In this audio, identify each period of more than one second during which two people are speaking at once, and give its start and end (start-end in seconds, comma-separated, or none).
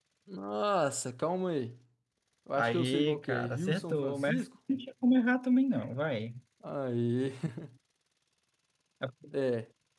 2.5-4.4